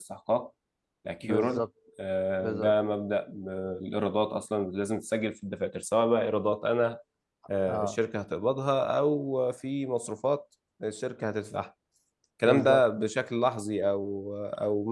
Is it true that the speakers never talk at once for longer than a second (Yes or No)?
Yes